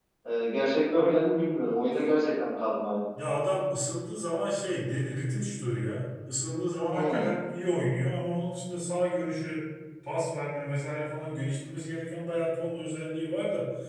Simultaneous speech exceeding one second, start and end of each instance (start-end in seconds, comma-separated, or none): none